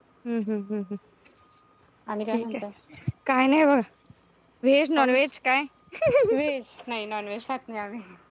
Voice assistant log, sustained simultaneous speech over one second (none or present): none